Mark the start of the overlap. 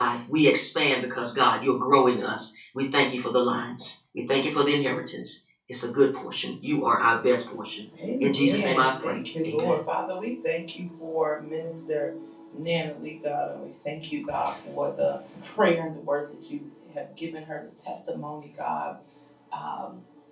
8.2 s

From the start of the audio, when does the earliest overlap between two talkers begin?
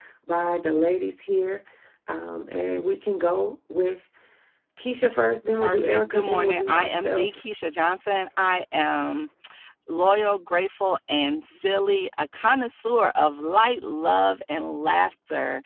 5.6 s

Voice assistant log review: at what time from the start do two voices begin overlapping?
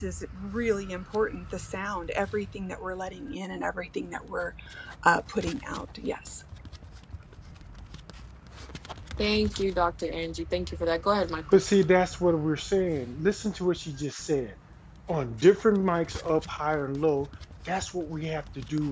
none

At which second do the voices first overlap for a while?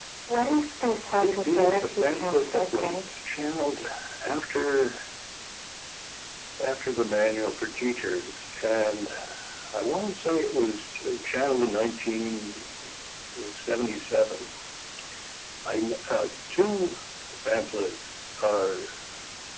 1.2 s

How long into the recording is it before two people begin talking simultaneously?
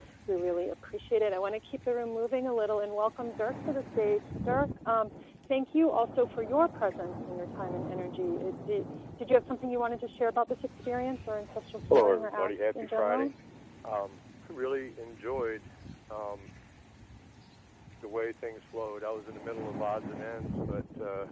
11.9 s

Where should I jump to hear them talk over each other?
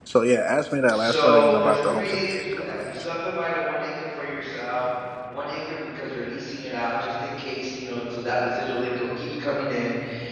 0.9 s

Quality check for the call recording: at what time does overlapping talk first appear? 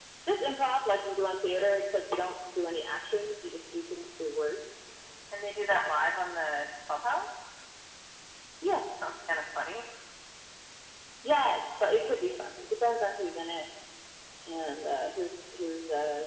none

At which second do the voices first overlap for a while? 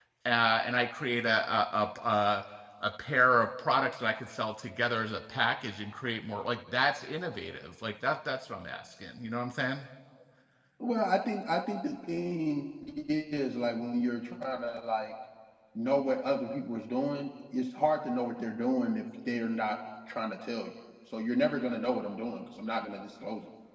none

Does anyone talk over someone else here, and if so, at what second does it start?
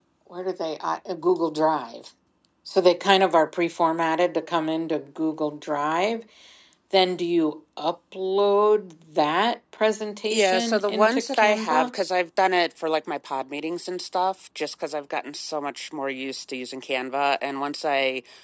10.3 s

